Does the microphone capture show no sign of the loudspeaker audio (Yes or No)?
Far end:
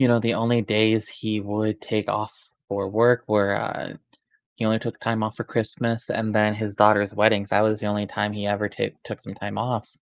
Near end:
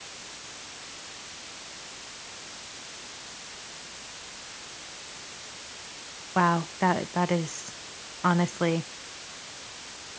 Yes